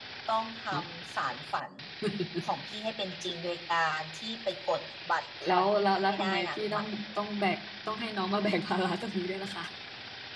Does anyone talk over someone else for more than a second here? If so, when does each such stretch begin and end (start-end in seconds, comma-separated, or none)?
5.5-6.8